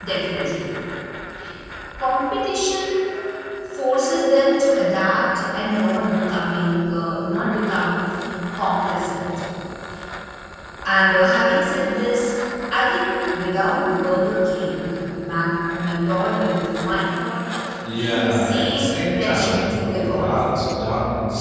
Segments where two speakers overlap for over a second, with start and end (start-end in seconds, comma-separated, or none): 17.9-20.4